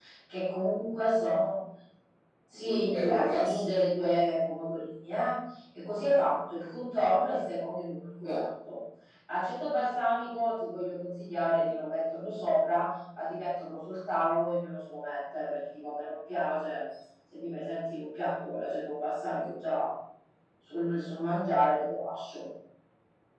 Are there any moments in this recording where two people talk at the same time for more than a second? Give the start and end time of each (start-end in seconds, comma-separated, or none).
2.5-3.8